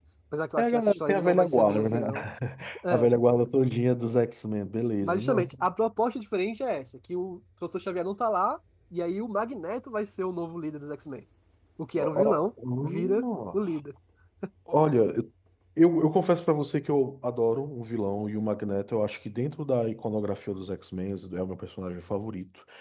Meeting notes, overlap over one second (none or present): present